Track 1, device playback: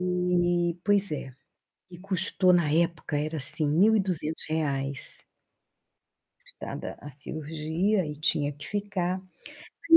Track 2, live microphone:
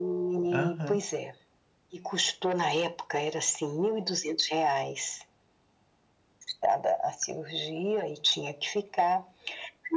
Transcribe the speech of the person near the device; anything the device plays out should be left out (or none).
Aham.